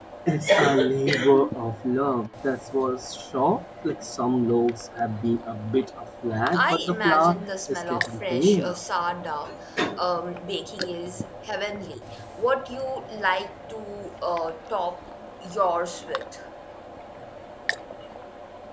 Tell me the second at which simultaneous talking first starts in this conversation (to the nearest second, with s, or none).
7 s